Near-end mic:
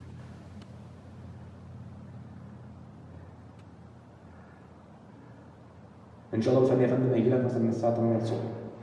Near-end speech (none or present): present